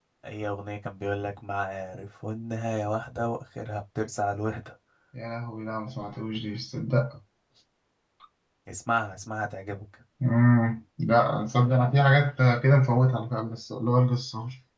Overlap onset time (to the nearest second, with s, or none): none